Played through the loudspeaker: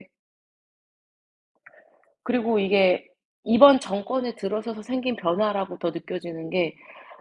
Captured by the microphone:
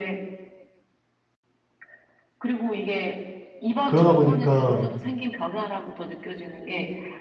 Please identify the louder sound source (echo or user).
user